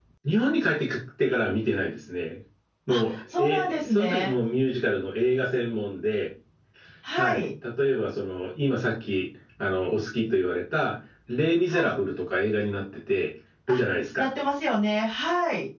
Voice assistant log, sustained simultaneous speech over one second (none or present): present